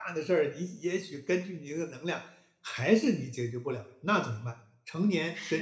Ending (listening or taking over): listening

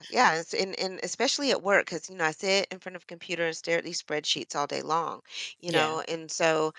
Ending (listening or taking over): listening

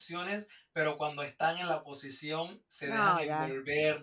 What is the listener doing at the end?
listening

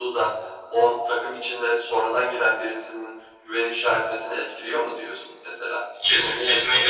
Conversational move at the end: taking over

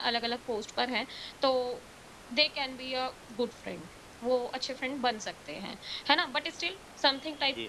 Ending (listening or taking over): listening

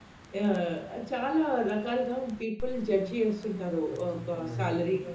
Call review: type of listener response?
listening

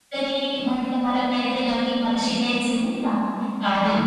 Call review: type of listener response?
listening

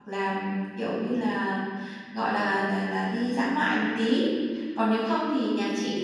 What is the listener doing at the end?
listening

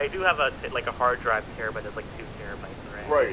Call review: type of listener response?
taking over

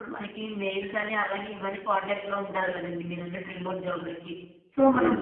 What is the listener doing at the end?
listening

